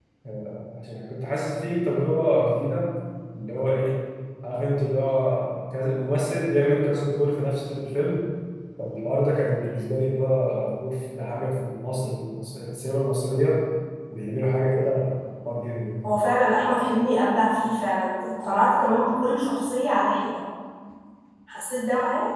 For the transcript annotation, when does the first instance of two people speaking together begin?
none

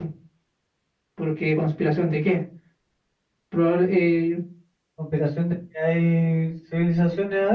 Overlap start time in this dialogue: none

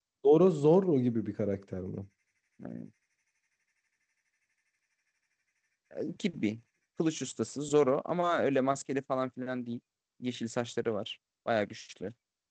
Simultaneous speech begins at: none

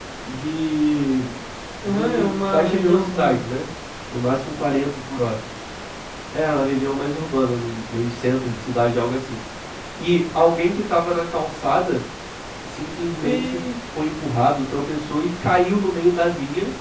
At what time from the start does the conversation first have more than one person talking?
2 s

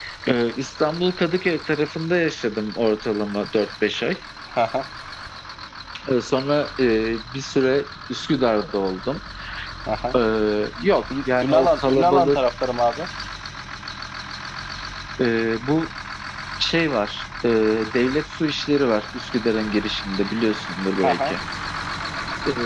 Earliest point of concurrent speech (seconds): 11 s

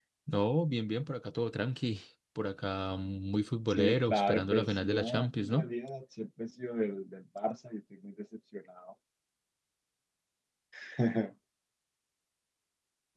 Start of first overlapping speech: 4 s

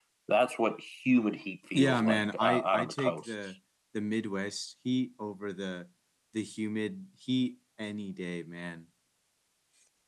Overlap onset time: 2 s

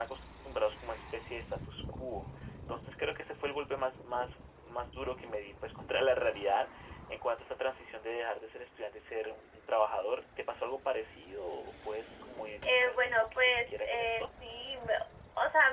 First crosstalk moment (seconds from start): 13 s

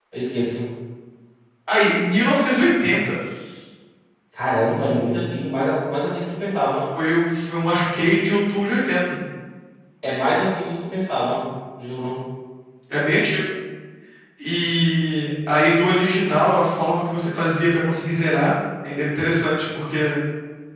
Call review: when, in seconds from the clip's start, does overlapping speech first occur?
none

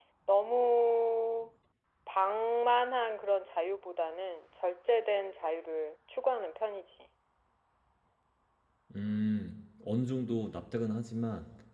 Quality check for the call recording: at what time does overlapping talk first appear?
none

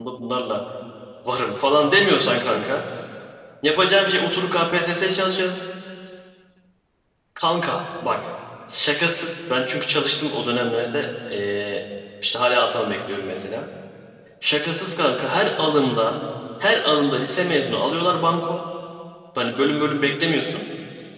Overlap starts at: none

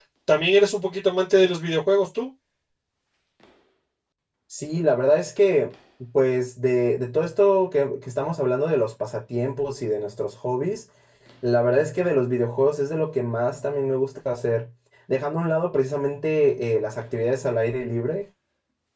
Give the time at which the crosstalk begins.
none

